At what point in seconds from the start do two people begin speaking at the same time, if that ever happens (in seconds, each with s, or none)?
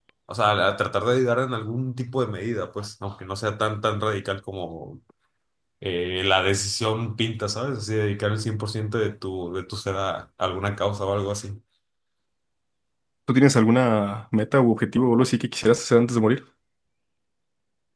none